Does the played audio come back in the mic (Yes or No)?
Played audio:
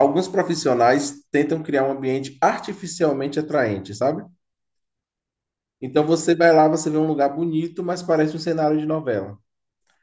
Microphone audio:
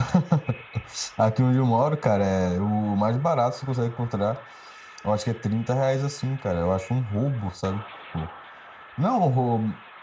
No